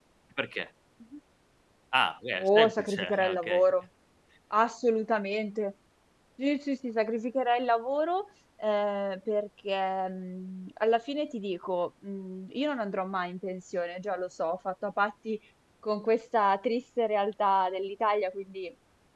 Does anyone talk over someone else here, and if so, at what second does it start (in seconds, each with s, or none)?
2.4 s